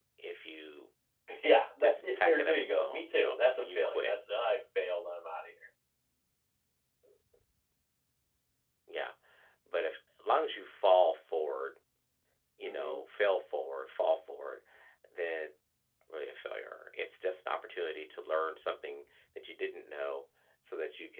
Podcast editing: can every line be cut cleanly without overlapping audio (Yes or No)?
No